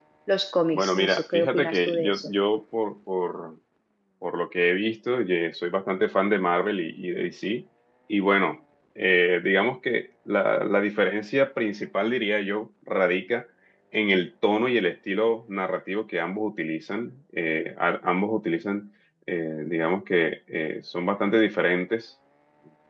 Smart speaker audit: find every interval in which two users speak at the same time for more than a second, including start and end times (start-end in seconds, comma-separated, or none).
0.7-2.3